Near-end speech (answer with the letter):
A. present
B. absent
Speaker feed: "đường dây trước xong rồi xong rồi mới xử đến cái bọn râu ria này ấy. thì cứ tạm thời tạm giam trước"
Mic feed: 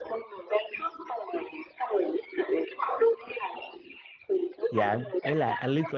A